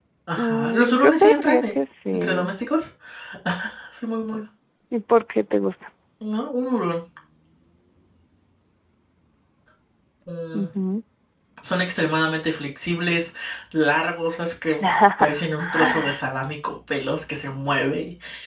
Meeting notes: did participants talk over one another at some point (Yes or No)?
Yes